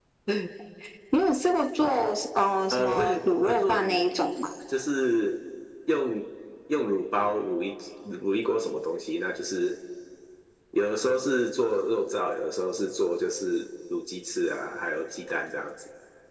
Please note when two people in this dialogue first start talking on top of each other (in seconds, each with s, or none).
2.7 s